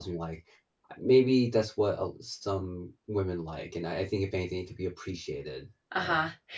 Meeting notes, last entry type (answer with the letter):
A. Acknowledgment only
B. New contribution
B